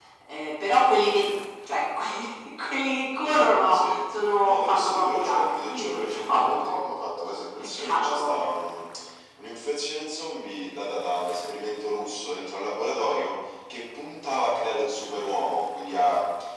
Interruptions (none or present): present